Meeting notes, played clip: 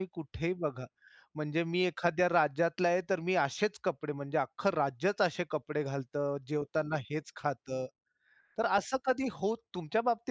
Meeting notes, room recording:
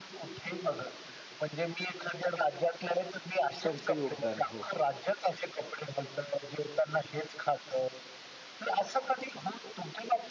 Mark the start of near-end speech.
4 s

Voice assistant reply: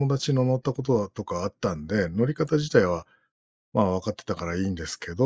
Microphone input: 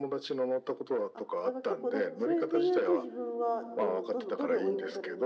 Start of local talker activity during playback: 1 s

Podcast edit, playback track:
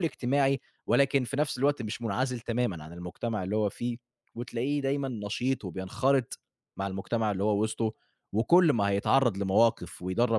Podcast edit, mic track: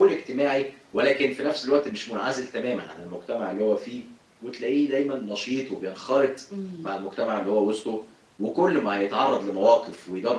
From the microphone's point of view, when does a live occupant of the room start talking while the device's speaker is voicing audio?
7 s

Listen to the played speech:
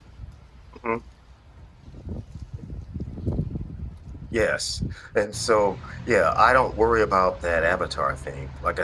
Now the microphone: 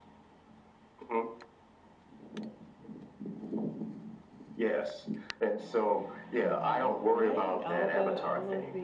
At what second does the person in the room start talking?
6 s

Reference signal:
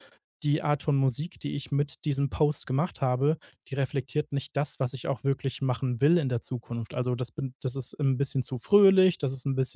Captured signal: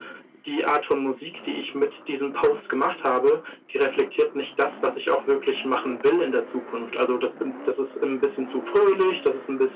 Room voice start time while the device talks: none

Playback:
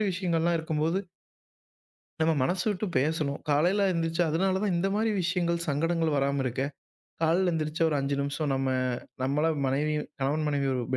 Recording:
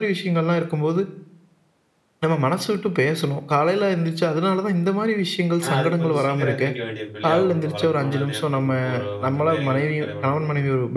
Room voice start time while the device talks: 6 s

